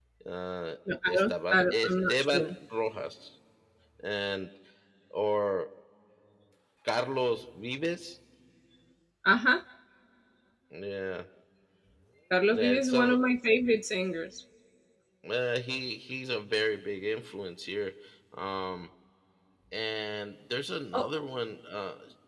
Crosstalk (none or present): present